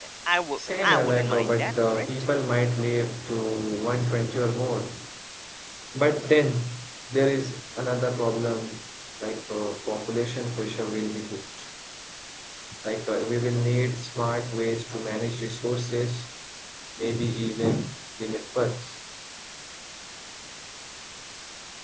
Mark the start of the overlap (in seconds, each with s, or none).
0.8 s